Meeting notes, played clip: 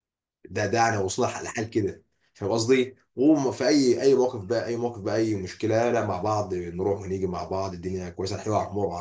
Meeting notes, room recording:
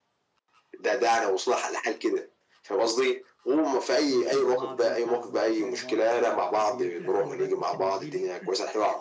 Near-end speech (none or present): present